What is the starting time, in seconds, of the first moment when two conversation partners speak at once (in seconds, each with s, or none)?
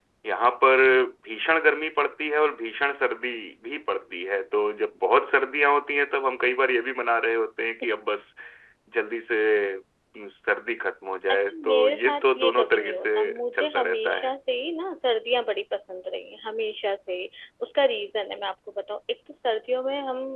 11.3 s